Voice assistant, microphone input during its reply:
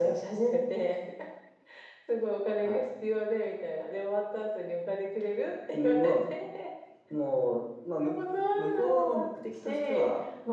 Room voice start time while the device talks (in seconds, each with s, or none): none